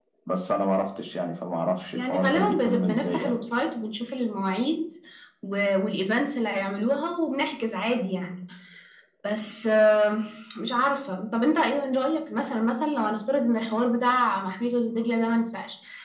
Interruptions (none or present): present